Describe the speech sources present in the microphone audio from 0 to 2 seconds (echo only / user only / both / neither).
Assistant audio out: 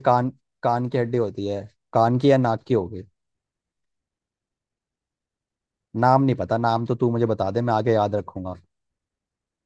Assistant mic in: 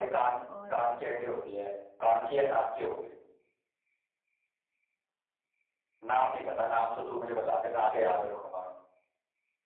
both